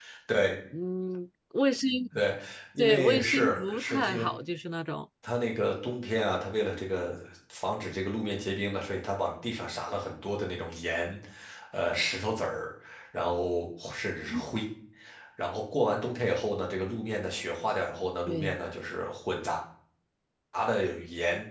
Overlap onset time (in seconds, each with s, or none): 2.8 s